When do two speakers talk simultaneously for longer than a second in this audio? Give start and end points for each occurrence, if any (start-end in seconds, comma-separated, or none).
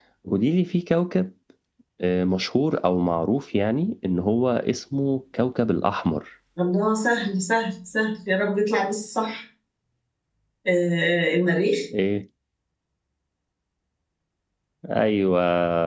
none